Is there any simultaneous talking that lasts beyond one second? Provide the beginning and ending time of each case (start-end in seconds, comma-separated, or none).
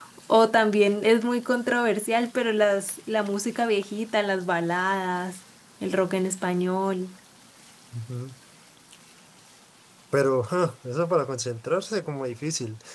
none